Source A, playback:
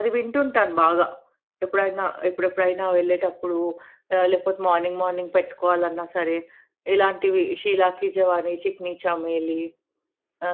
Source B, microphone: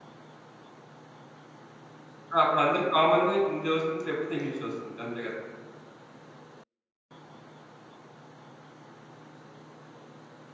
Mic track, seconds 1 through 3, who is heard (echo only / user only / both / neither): user only